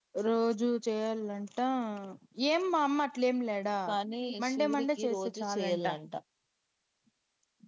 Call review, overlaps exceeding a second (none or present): present